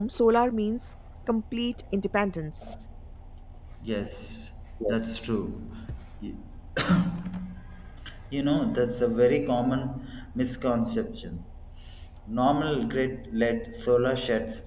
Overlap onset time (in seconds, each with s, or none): none